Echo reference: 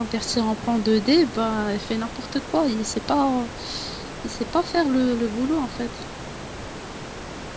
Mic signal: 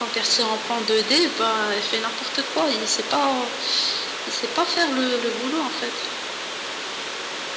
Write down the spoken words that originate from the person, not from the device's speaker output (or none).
none